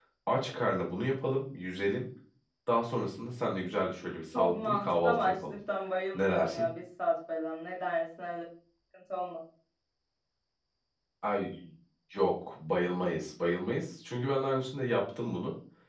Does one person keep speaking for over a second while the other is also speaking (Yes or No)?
Yes